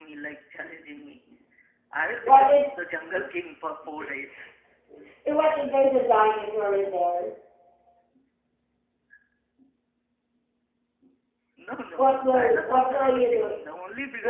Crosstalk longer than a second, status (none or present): present